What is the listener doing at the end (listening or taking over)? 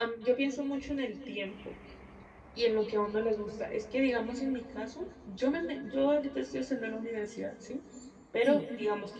listening